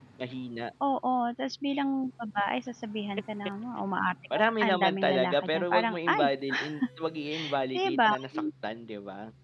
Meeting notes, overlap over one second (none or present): present